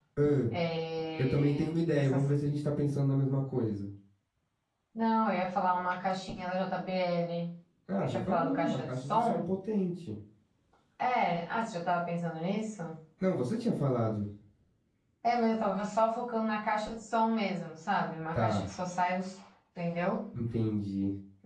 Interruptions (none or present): present